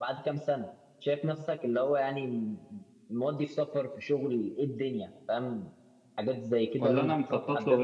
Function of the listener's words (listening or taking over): taking over